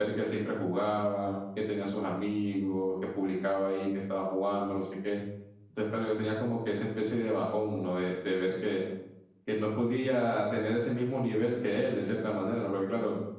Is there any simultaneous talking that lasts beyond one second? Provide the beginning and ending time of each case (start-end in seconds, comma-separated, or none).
none